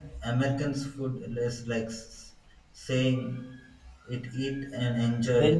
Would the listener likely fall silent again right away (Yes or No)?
No